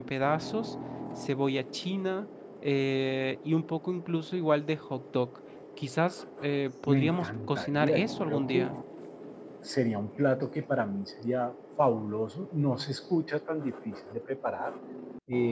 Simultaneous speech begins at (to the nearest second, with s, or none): 7 s